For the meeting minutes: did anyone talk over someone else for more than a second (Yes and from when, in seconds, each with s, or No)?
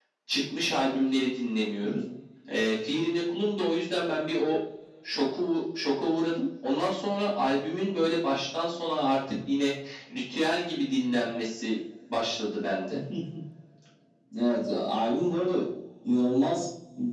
No